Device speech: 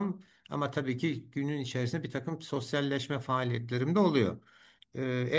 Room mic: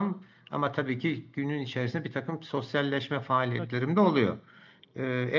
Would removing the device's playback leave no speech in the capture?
No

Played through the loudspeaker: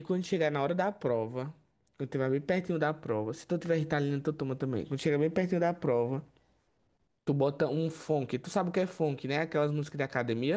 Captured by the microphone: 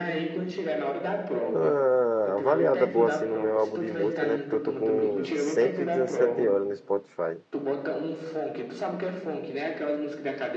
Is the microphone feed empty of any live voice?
No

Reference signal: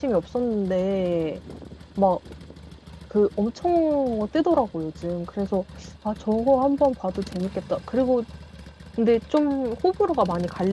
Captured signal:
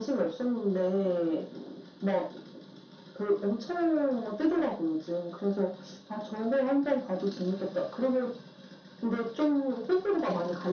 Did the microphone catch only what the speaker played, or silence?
Yes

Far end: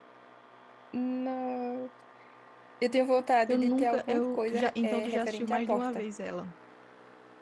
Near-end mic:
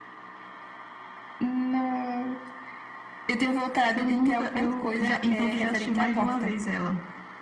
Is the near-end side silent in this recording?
Yes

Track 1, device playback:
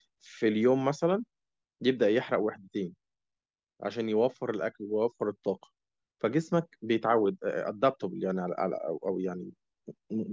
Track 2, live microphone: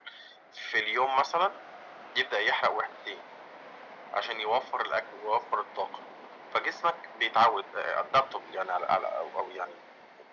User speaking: No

